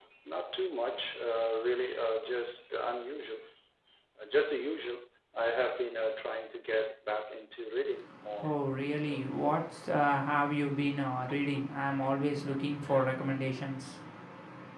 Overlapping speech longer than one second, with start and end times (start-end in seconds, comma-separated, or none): none